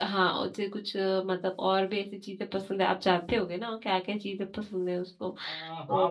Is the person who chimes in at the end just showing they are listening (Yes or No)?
No